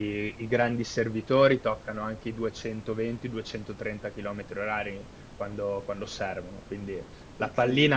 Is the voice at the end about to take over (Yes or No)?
No